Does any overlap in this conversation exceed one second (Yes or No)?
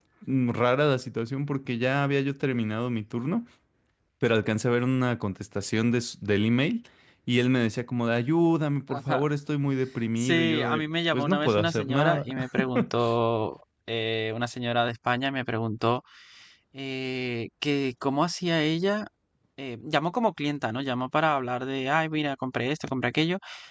Yes